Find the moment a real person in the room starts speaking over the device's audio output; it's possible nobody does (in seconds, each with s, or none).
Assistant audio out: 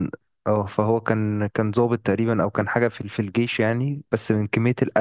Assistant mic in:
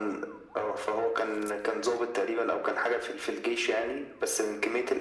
none